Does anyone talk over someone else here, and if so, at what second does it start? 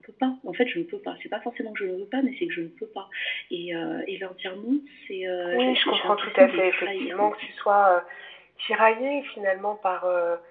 5.5 s

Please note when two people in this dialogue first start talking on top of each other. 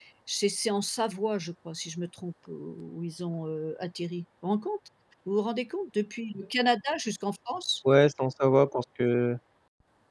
none

